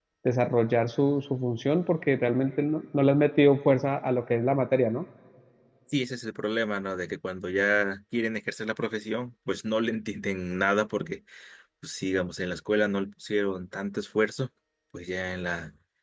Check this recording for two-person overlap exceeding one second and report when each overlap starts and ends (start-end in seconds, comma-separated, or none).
none